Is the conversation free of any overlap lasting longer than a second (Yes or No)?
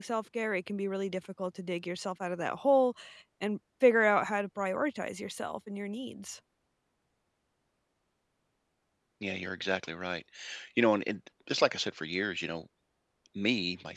Yes